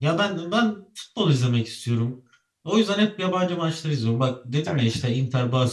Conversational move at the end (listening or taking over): listening